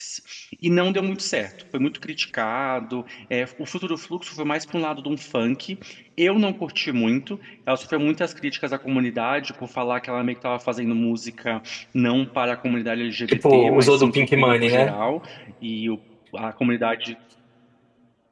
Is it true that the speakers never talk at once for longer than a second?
No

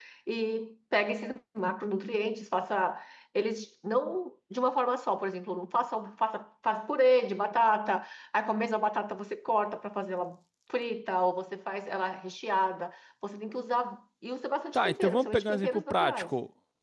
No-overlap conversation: No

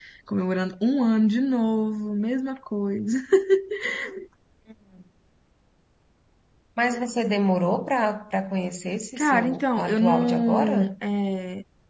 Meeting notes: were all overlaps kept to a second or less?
No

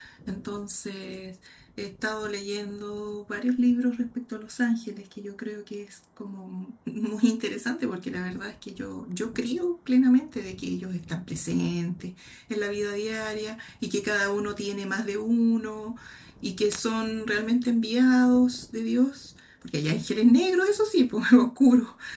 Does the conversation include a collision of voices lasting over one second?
No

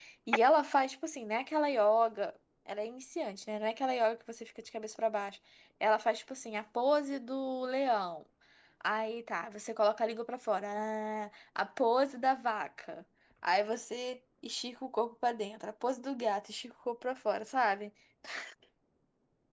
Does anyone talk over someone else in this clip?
No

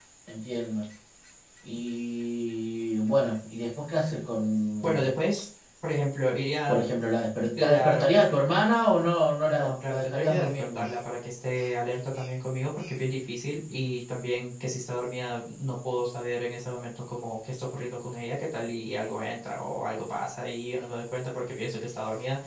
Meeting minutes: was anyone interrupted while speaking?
Yes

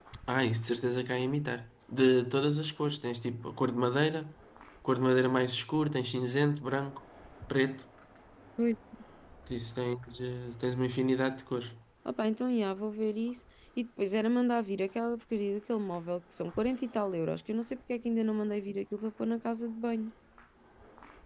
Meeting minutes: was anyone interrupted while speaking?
No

